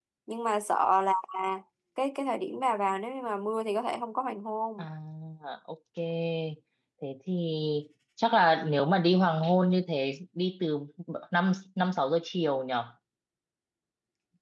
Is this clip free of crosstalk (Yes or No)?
Yes